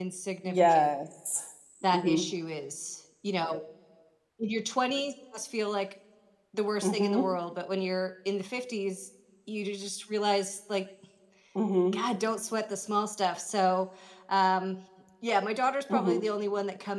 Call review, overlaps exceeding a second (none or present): none